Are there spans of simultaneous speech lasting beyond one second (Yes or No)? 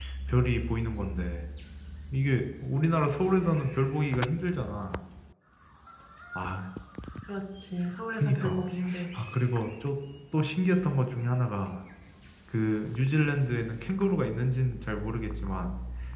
No